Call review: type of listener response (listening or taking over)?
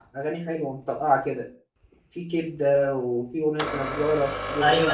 taking over